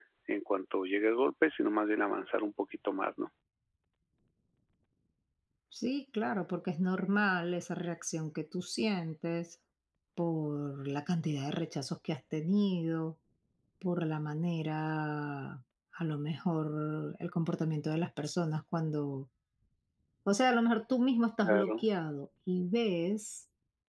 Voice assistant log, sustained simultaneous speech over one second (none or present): none